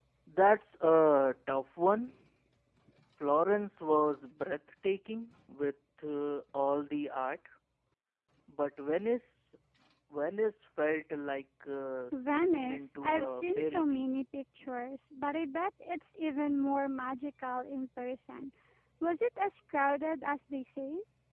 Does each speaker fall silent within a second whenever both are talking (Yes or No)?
No